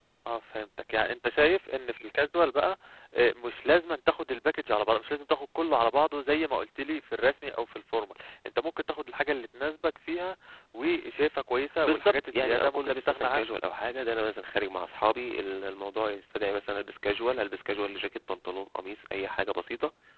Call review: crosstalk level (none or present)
present